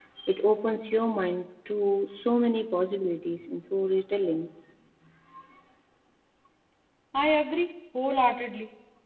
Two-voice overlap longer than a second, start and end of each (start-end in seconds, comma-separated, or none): none